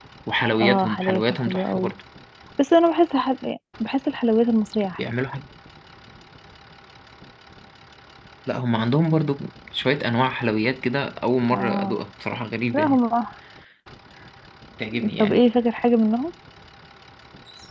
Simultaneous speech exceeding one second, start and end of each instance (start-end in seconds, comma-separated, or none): 0.6-1.9